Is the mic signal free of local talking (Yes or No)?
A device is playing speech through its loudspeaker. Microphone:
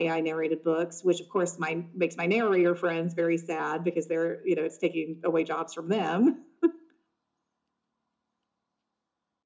Yes